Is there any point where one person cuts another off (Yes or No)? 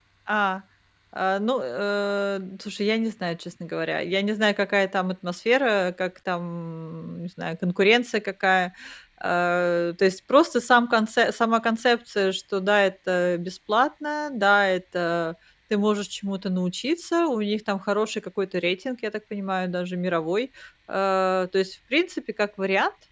No